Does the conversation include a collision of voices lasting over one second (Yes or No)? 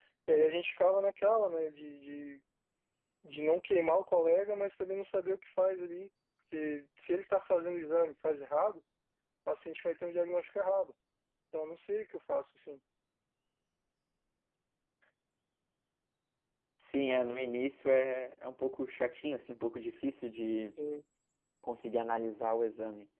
No